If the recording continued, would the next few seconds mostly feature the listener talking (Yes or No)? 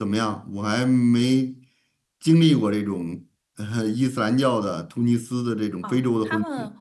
Yes